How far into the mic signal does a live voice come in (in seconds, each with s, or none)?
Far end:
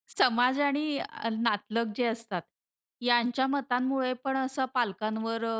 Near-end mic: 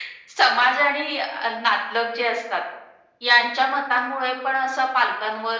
none